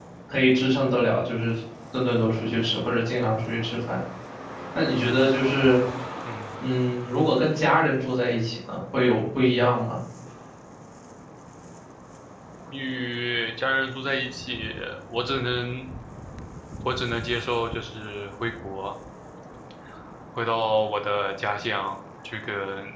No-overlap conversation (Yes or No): Yes